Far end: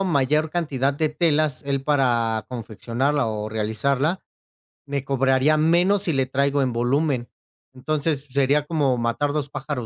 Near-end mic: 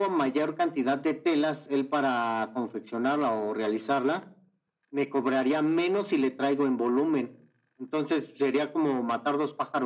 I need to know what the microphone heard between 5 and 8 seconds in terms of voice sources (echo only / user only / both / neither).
echo only